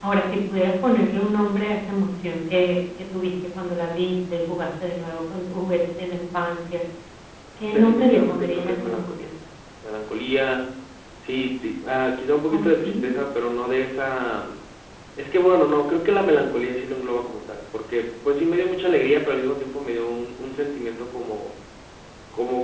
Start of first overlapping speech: 7.6 s

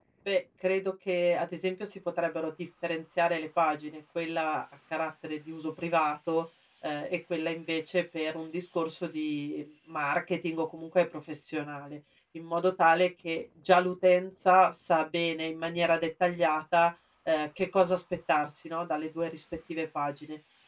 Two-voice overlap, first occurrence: none

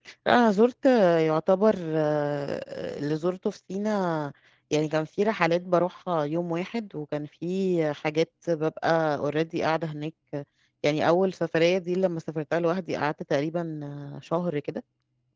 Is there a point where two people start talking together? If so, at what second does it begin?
none

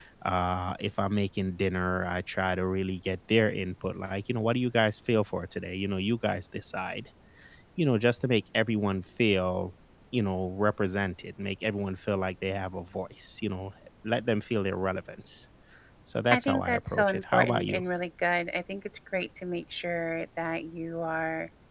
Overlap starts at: 16.3 s

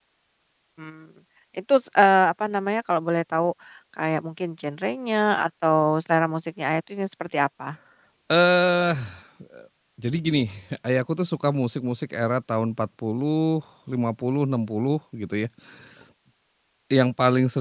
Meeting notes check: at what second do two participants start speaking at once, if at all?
none

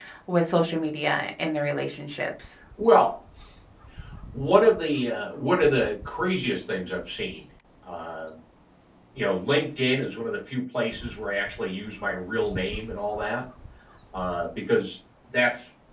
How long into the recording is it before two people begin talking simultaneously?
none

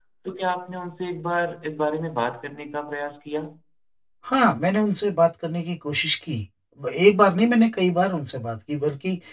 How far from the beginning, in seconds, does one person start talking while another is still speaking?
none

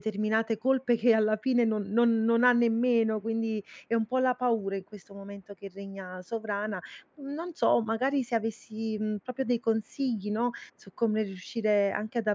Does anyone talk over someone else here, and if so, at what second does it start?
none

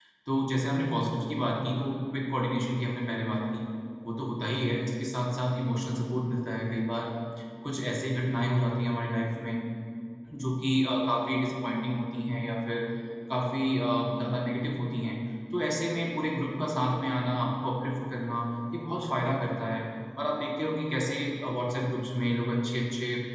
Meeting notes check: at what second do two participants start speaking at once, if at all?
none

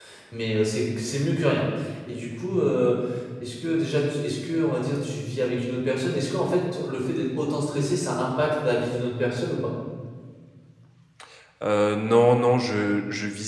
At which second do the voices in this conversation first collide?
none

